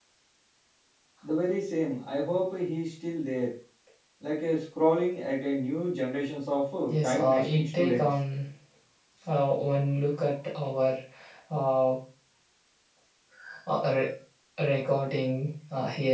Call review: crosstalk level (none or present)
present